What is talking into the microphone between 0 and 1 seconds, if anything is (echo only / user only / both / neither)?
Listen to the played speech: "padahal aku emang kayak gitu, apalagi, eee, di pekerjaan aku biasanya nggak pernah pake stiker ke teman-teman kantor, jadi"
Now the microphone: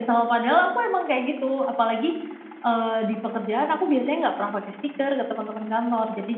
echo only